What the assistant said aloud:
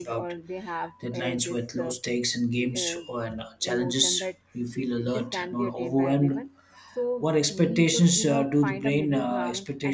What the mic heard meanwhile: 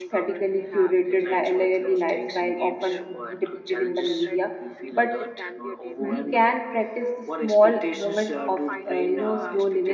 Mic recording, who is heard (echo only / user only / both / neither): both